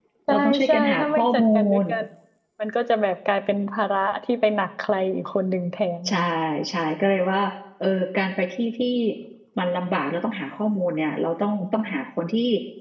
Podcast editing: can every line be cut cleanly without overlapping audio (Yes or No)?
No